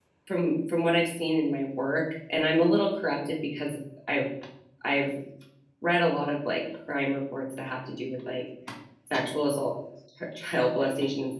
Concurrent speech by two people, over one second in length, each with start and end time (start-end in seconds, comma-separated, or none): none